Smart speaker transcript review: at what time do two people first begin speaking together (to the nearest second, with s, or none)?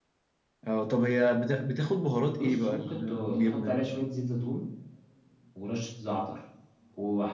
2 s